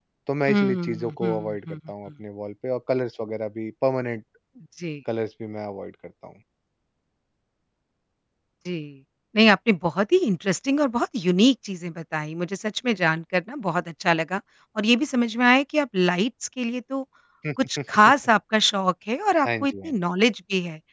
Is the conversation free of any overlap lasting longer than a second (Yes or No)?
No